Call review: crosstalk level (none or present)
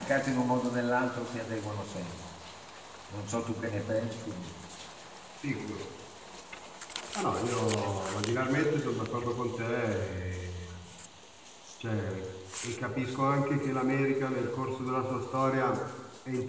none